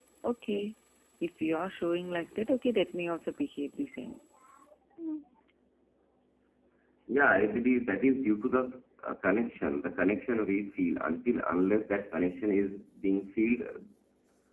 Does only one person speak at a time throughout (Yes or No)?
Yes